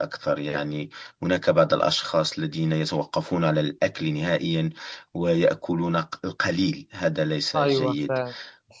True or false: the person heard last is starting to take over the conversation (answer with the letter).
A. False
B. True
B